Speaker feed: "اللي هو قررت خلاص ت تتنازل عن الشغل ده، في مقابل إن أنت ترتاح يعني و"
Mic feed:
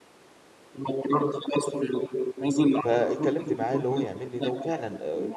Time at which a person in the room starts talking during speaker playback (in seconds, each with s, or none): 2.8 s